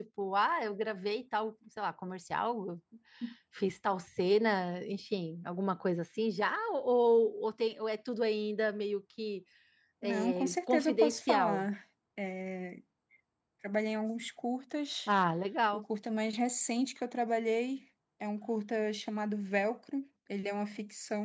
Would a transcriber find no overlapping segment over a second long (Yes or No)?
No